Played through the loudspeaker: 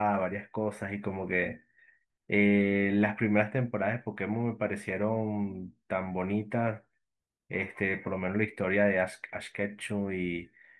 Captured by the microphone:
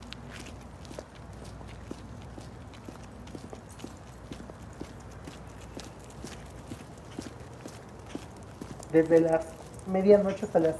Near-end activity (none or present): present